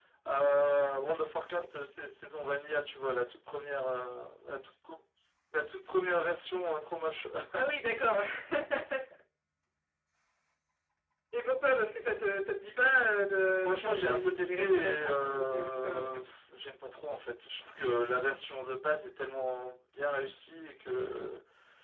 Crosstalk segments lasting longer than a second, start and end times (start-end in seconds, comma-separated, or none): 13.6-16.1